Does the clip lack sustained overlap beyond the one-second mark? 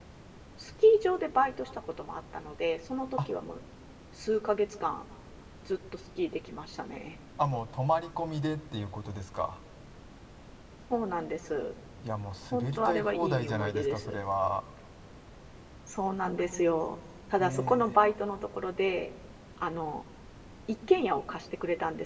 No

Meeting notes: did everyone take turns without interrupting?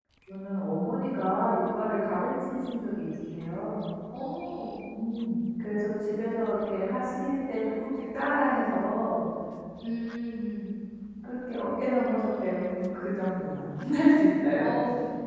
Yes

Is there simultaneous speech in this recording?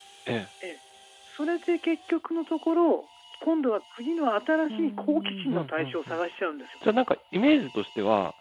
Yes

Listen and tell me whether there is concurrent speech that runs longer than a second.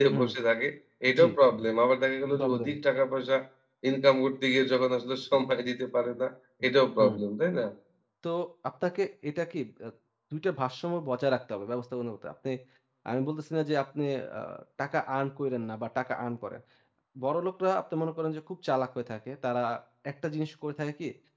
No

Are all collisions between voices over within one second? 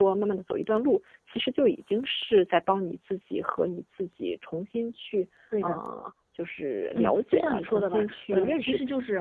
No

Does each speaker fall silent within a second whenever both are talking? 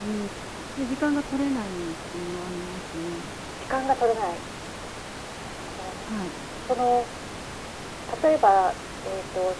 Yes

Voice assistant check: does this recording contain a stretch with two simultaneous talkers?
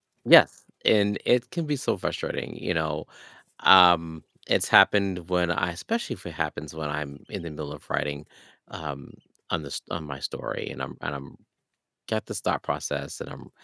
No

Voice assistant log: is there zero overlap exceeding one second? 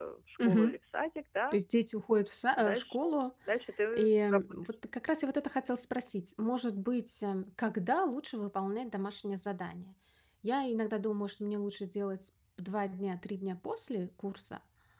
Yes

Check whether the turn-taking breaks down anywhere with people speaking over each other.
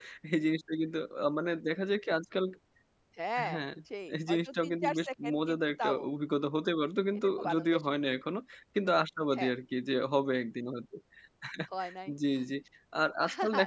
Yes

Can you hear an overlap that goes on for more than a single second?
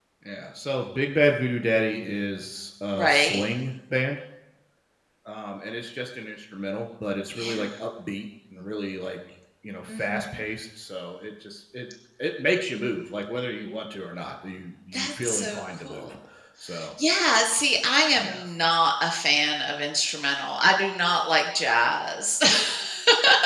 Yes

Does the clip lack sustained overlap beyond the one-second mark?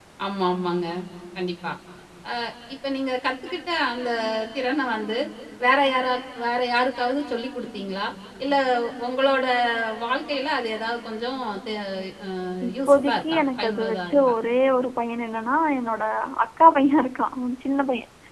No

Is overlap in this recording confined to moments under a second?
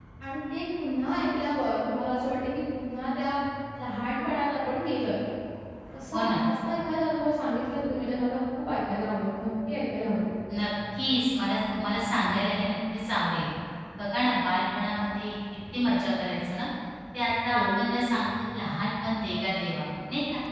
Yes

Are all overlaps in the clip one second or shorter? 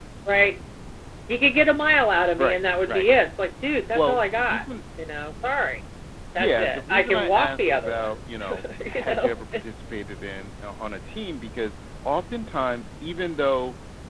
No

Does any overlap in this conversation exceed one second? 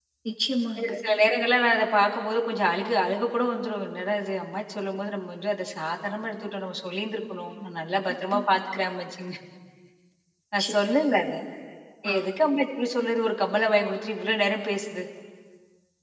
No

